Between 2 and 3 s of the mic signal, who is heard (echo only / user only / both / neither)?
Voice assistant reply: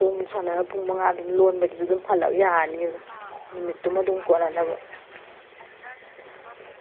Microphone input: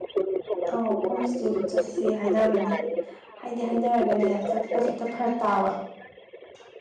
both